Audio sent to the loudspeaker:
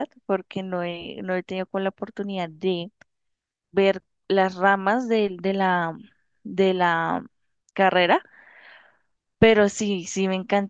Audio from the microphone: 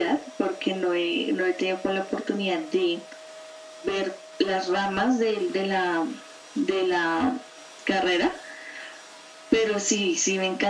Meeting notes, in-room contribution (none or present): none